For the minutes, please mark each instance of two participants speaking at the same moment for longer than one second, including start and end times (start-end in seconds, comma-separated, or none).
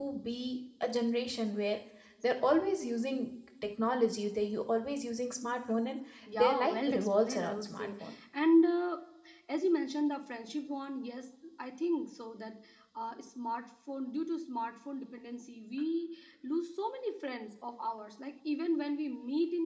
6.4-7.9